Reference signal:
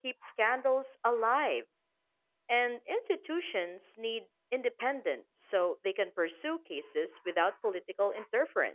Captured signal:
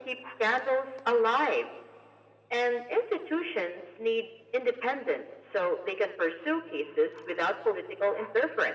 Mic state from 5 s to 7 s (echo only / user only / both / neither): echo only